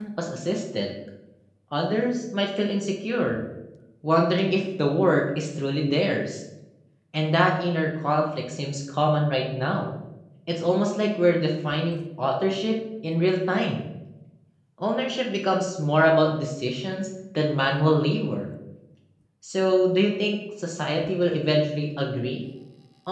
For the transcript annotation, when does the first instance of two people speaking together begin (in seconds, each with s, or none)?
none